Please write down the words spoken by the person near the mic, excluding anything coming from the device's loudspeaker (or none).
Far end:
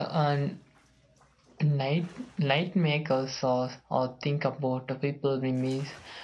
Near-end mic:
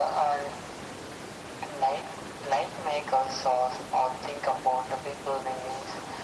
none